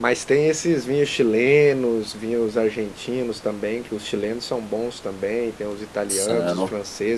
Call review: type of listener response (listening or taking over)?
listening